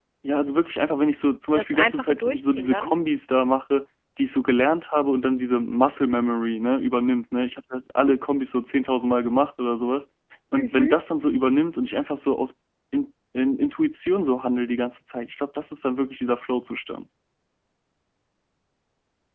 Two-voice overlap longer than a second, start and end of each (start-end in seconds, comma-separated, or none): 1.5-3.0